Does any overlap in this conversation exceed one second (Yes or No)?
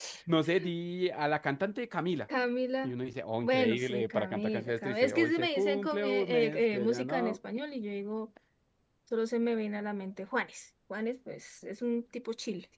Yes